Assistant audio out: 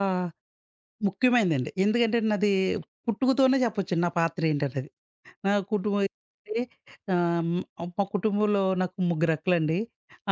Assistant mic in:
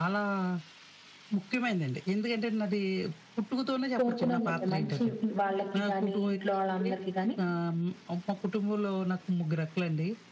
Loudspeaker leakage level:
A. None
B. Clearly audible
B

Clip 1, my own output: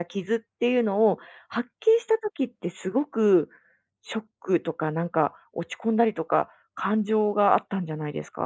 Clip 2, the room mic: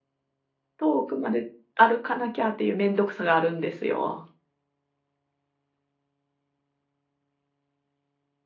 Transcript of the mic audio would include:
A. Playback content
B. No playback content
B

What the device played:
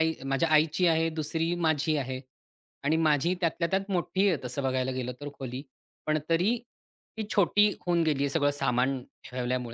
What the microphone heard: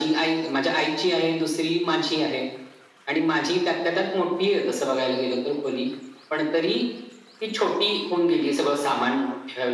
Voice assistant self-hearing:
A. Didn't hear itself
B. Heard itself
B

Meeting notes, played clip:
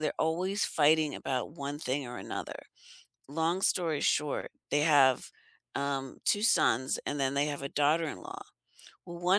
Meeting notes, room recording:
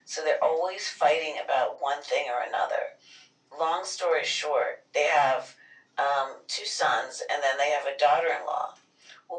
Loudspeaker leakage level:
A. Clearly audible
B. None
A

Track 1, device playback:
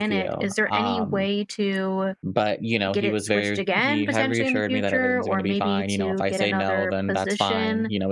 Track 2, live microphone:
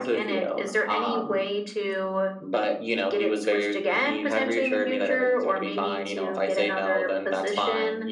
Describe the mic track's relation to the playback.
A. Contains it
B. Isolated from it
A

